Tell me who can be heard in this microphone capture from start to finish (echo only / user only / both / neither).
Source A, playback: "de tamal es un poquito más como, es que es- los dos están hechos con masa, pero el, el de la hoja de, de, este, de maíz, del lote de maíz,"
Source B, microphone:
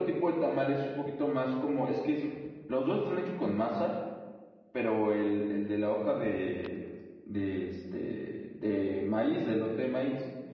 echo only